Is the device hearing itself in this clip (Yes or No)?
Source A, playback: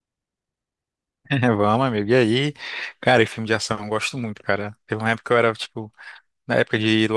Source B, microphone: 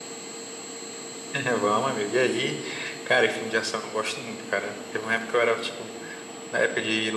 Yes